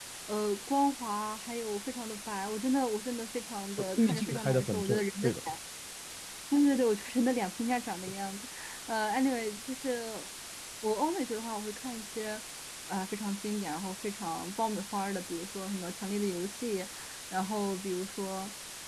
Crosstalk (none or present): present